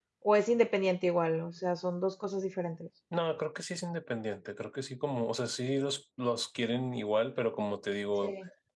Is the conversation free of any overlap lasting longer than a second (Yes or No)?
Yes